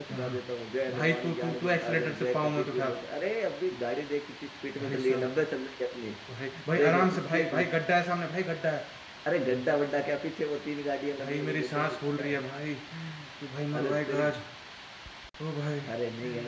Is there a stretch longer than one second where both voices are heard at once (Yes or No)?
Yes